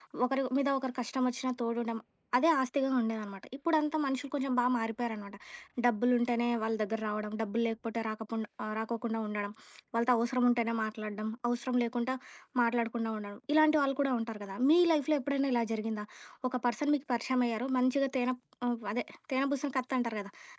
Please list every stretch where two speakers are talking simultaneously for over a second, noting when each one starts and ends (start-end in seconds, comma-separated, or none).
none